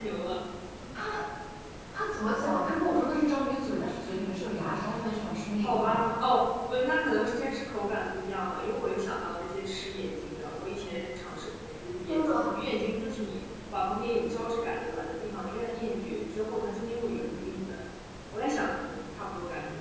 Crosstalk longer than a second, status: none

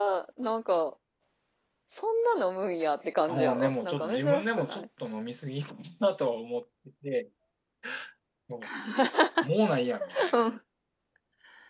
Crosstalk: present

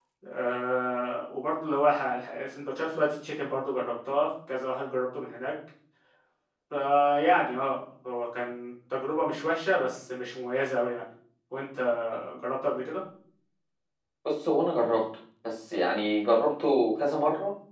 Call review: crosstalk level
none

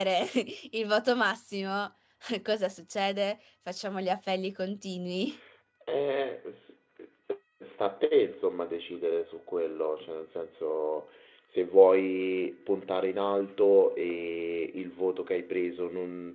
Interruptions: none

